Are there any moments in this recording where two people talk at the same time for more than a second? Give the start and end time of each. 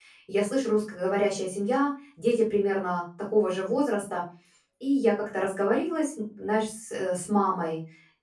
none

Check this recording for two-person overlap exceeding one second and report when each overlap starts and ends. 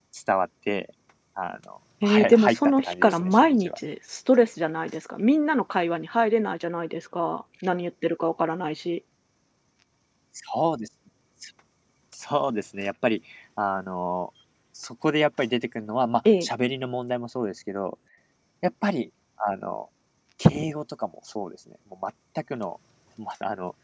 2.0-3.8

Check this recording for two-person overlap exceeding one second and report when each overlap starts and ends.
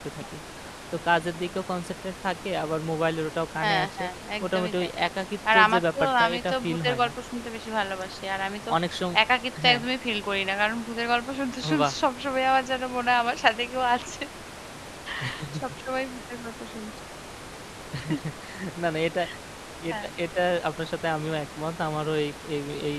5.5-7.1

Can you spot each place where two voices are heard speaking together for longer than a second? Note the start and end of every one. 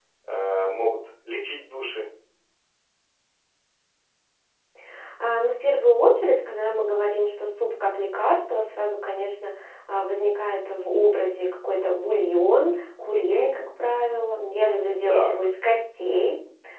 none

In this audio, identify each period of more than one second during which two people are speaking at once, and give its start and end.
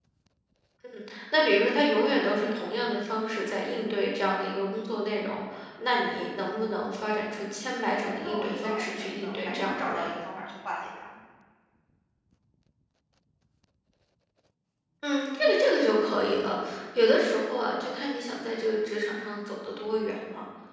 8.2-10.1

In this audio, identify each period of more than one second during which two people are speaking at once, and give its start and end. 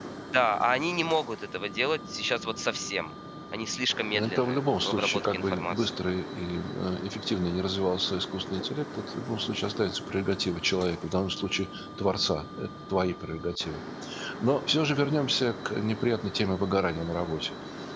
4.1-6.0

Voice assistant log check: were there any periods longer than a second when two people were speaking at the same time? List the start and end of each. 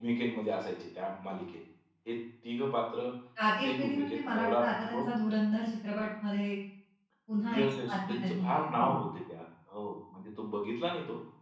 3.6-5.1, 7.5-9.0

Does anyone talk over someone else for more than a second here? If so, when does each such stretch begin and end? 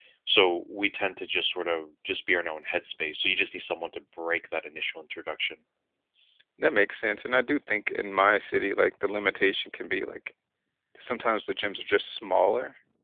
none

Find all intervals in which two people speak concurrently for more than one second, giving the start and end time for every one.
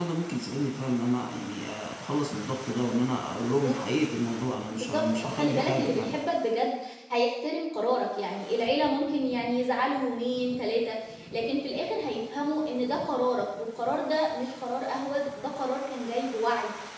4.7-6.2

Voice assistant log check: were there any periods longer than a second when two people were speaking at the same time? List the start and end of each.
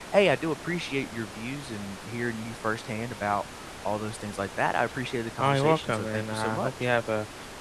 5.4-6.7

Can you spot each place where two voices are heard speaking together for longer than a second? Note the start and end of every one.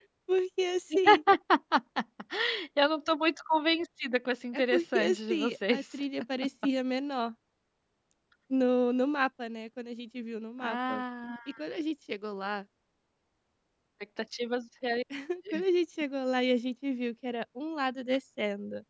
4.5-5.8

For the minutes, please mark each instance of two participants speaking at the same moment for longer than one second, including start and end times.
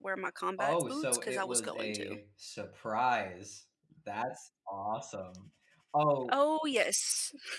0.6-2.2

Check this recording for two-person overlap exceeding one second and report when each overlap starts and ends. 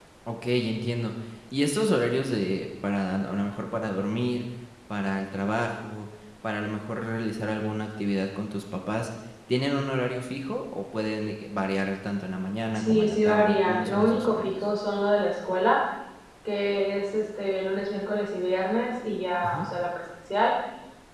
12.8-14.6

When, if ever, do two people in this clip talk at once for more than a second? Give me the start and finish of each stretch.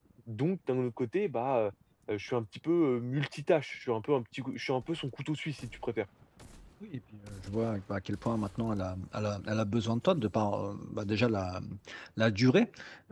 none

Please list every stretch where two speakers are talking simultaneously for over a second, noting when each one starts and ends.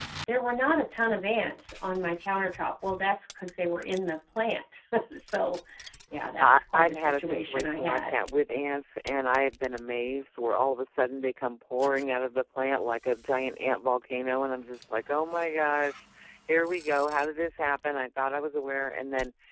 6.4-8.1

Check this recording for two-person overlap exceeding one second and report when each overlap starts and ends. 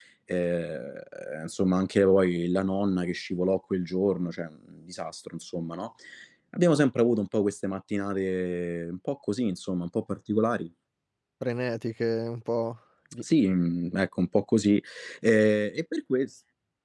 none

